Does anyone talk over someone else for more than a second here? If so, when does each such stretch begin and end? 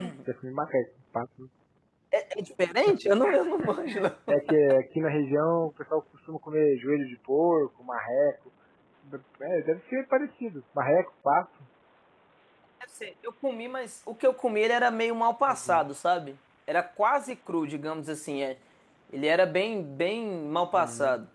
none

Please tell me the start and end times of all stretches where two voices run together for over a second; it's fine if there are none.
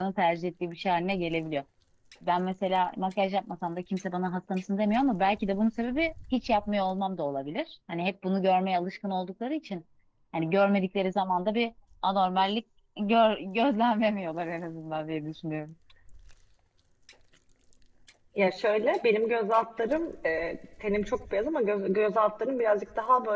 none

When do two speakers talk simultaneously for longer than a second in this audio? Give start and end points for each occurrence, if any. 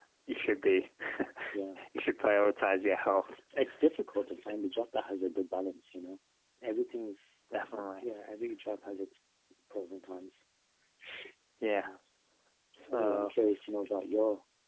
none

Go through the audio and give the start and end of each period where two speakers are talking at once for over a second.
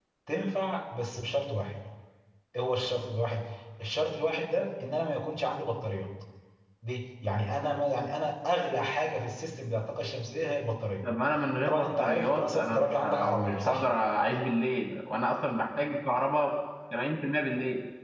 11.7-13.8

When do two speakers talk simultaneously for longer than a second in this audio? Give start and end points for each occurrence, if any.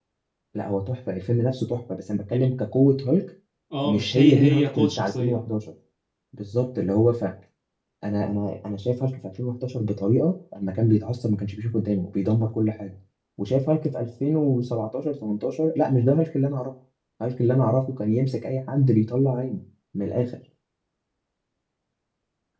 3.8-5.5

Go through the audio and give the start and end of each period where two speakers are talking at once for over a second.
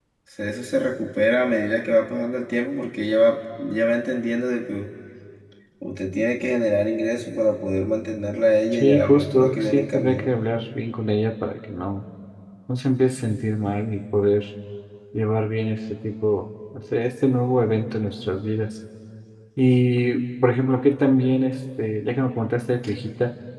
8.7-10.3

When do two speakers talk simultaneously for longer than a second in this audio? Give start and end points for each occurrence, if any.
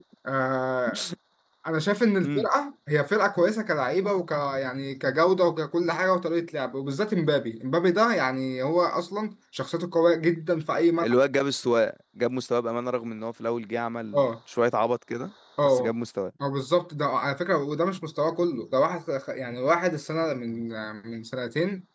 none

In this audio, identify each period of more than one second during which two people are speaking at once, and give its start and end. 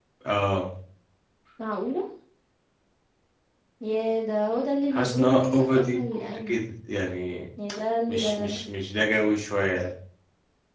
4.9-6.6

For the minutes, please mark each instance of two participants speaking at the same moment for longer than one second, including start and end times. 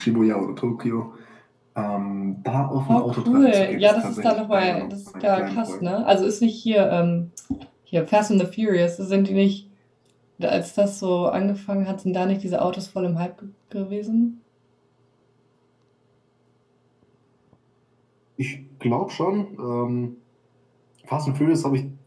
2.9-5.9

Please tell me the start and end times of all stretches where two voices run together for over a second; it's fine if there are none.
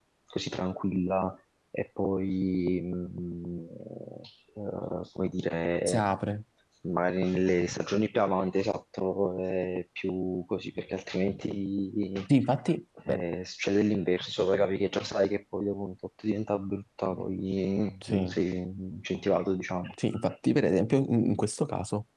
none

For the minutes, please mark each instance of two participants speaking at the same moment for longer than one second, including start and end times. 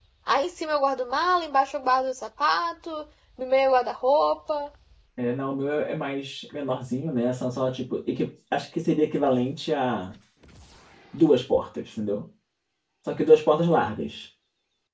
none

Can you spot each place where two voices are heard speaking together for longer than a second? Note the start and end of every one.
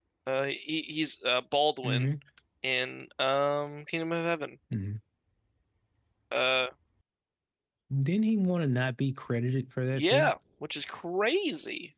none

